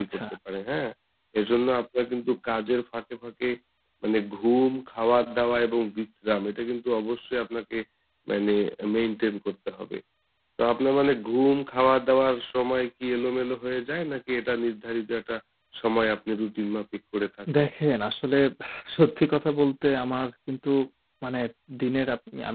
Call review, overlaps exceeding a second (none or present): none